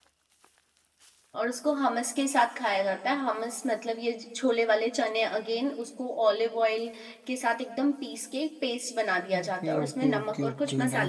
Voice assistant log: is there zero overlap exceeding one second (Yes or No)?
No